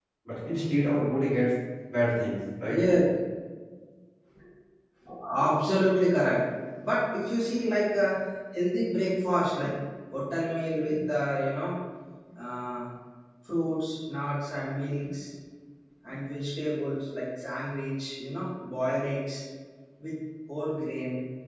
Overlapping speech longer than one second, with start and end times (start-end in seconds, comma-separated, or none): none